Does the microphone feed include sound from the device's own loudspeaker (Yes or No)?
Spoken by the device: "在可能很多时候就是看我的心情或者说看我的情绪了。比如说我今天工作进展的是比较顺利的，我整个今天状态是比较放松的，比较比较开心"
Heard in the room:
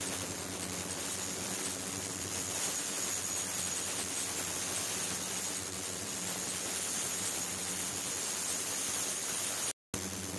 No